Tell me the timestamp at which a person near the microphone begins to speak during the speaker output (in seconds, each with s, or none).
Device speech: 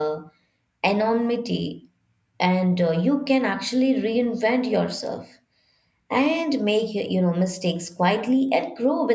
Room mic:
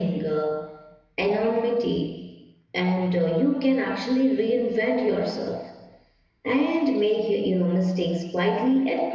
none